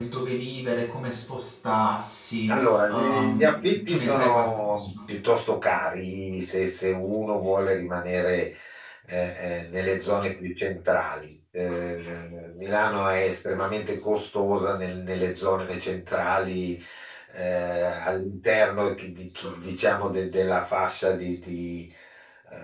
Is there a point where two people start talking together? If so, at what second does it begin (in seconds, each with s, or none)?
2.5 s